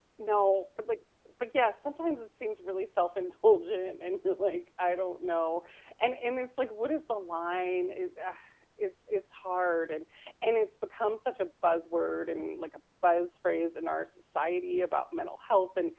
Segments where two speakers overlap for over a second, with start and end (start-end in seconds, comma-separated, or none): none